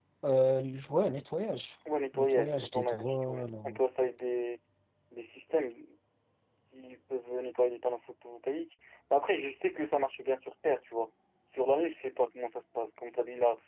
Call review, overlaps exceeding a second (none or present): present